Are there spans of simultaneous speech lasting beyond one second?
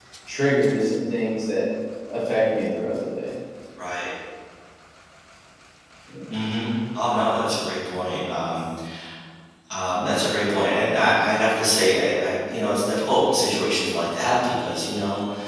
No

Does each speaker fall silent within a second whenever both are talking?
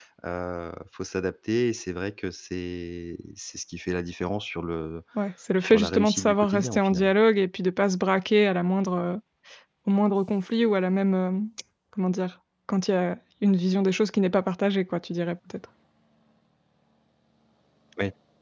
No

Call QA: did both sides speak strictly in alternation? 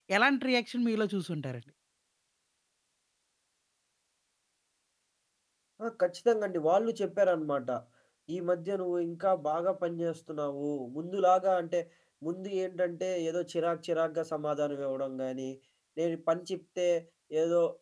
Yes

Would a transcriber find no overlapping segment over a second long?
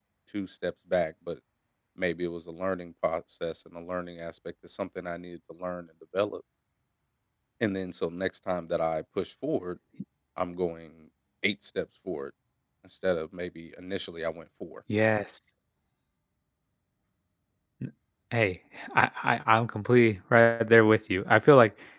Yes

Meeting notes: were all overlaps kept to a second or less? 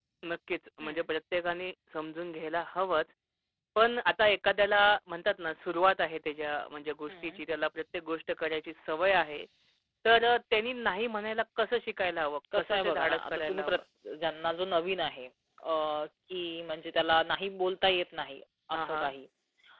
No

